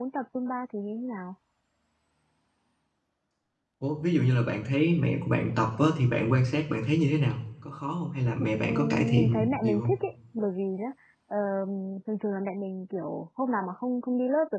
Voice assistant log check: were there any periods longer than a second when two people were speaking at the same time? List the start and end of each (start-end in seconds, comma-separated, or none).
8.4-9.9